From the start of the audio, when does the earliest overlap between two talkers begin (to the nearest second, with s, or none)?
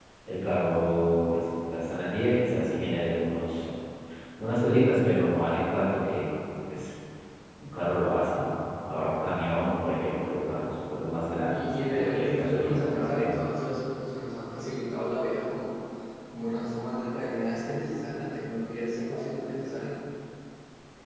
11 s